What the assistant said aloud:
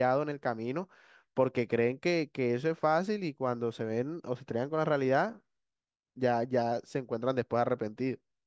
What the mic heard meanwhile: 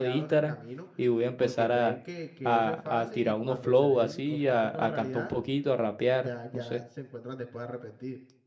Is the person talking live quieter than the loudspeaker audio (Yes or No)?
No